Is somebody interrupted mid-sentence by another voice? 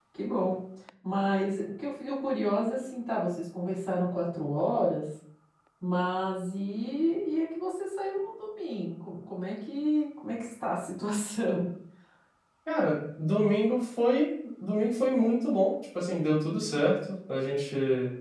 No

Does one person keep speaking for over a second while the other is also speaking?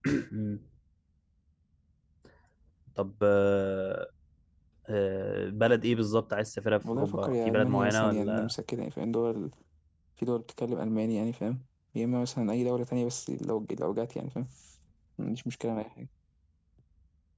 Yes, from 6.8 s

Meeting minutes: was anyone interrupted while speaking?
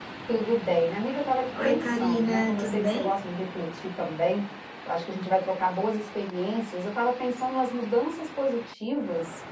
Yes, from 1.5 s

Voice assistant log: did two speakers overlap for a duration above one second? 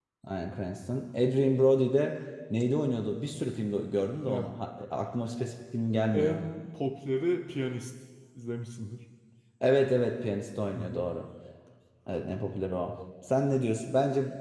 No

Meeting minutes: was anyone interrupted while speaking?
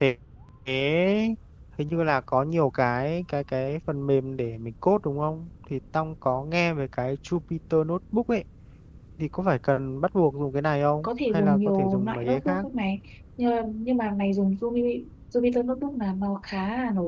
Yes, from 11.0 s

